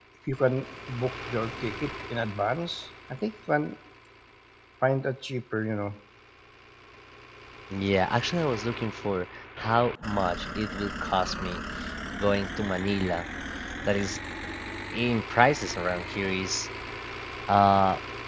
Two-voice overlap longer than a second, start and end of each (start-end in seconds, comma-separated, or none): none